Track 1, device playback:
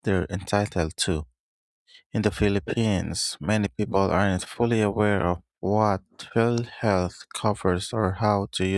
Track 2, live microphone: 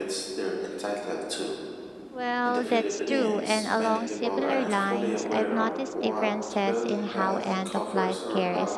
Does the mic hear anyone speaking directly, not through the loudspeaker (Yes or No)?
Yes